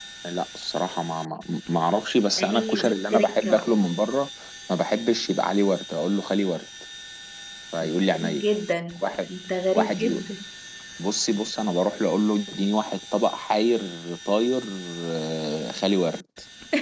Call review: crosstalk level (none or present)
present